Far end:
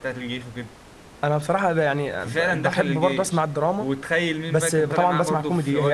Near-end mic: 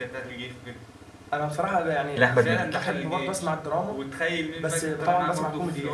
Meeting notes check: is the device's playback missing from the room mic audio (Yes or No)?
No